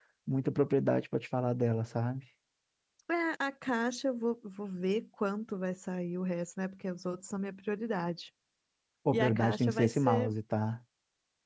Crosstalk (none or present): present